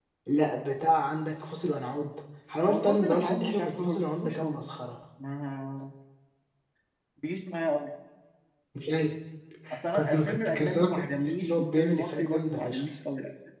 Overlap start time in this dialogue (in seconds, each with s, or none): 2.7 s